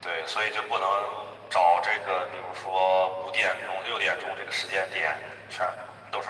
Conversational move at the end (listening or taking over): listening